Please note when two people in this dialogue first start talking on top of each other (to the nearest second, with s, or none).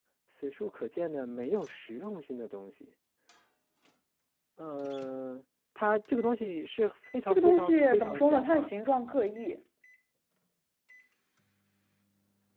7 s